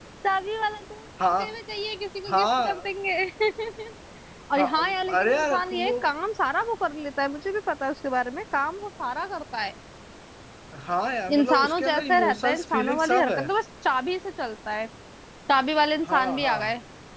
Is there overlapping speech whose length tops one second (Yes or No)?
Yes